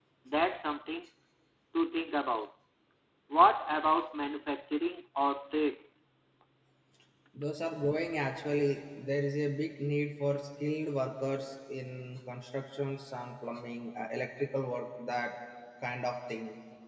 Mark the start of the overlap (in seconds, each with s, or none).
none